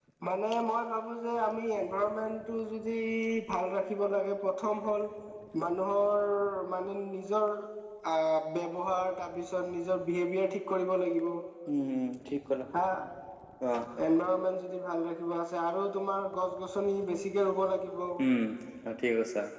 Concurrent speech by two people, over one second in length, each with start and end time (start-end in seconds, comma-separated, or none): none